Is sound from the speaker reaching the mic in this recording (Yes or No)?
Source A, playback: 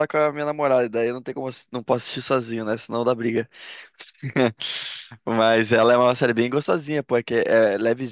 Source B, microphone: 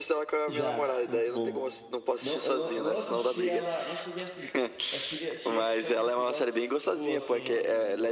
Yes